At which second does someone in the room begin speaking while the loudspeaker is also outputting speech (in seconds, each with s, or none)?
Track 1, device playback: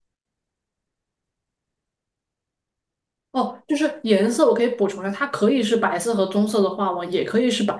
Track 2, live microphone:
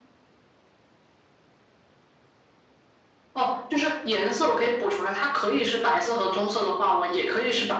none